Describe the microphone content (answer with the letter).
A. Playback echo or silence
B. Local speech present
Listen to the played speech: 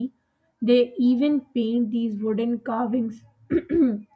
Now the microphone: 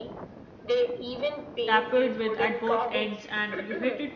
B